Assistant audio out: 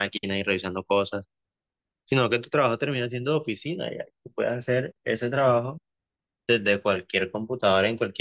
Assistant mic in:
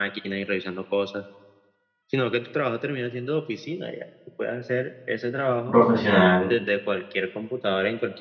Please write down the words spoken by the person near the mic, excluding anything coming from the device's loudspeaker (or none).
profesional,